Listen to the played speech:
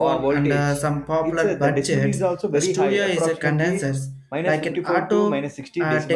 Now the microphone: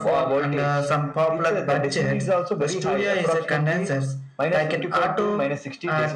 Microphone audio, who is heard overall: echo only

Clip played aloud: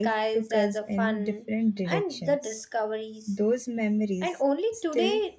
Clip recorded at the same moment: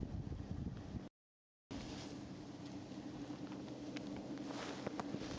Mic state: neither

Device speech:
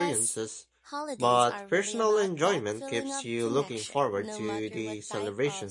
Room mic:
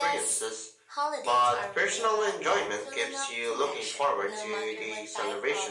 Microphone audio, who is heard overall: echo only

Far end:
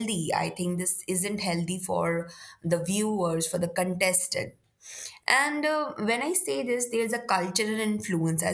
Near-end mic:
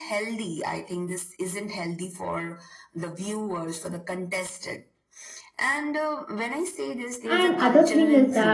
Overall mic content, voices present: both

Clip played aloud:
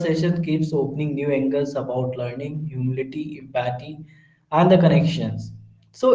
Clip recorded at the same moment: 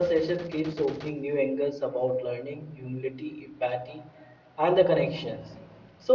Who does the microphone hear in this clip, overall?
echo only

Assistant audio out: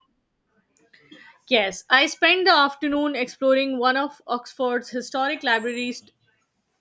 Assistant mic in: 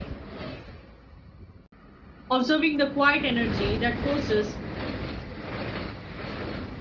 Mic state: user only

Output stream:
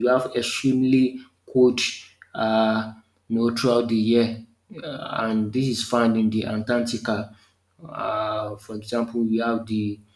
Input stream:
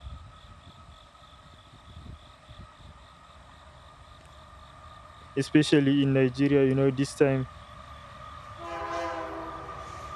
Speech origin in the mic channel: user only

